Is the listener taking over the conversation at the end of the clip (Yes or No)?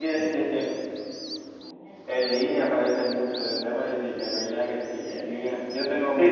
Yes